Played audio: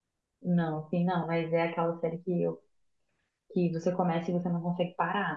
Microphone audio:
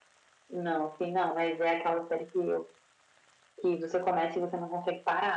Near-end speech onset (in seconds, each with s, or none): none